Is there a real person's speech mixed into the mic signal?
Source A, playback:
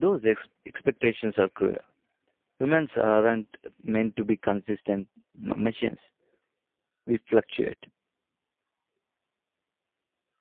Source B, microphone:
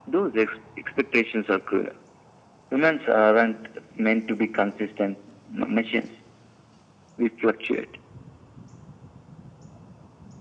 No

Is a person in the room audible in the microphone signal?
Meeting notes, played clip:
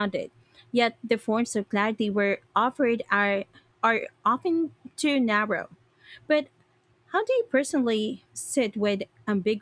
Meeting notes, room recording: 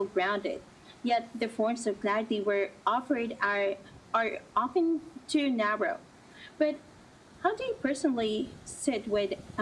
No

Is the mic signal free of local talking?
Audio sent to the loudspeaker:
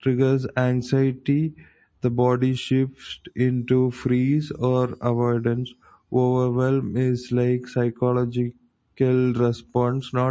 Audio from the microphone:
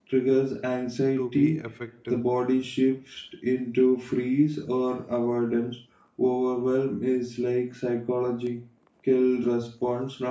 No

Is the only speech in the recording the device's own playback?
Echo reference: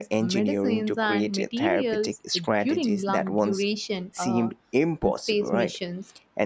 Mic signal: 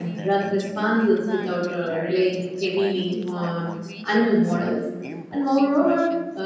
No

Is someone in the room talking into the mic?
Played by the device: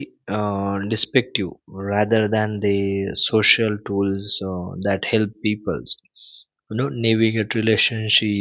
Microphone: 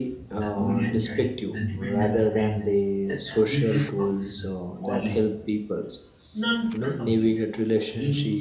Yes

